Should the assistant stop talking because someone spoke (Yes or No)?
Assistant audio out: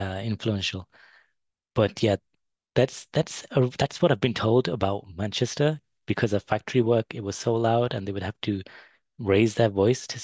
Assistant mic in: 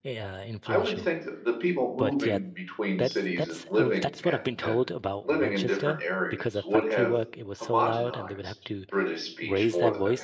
Yes